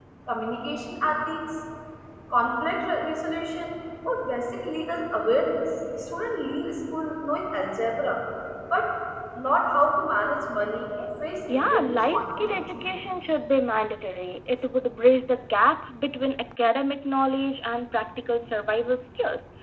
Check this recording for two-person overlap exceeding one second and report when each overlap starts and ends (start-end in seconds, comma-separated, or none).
11.5-12.9